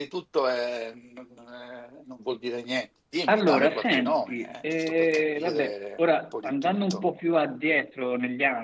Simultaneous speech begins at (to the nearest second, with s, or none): 3 s